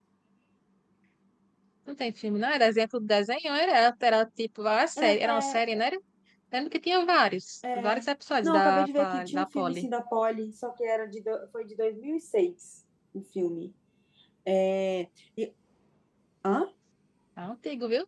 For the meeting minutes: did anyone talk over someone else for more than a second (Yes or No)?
Yes